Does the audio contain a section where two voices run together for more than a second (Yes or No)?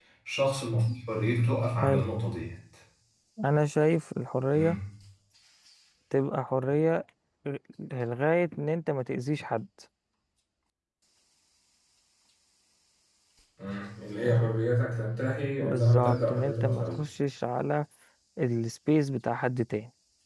Yes